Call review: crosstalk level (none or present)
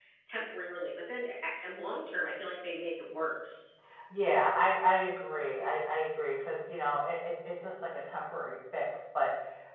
none